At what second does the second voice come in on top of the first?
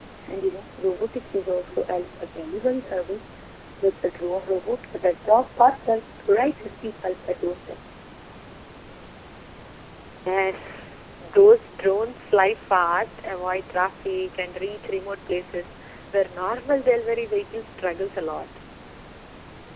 none

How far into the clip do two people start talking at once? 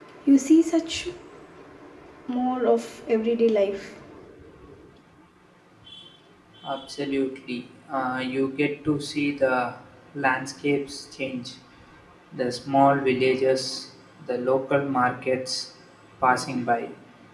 none

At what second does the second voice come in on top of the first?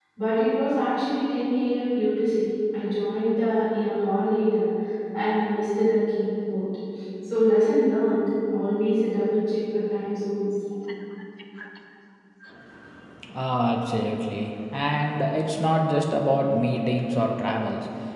none

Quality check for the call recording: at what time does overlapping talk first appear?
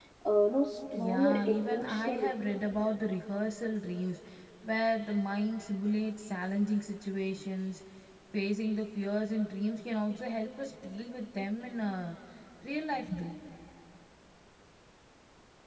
1 s

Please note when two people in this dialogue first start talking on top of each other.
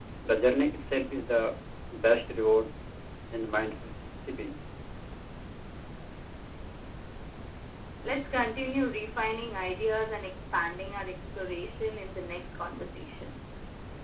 none

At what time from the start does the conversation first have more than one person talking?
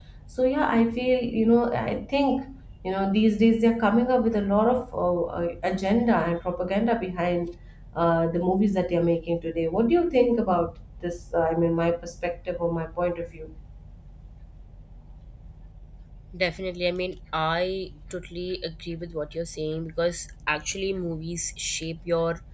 none

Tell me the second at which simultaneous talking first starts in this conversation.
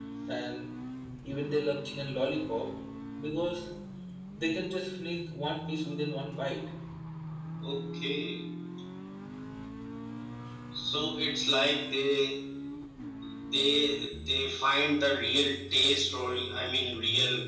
none

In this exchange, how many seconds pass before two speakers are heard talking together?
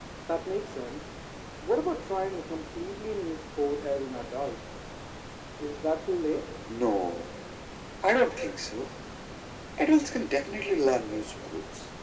none

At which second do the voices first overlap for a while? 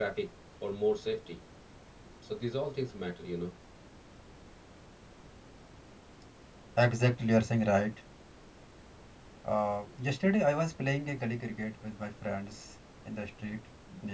none

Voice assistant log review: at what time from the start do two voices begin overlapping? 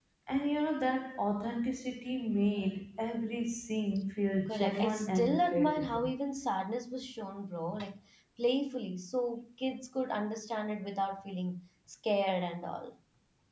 4 s

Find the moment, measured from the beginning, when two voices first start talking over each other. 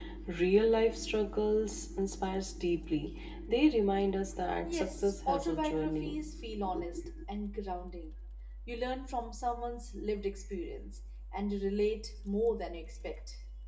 5 s

